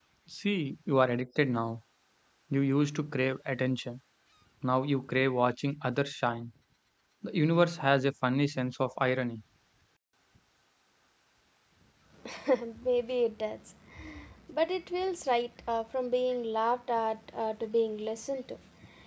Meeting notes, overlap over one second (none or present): none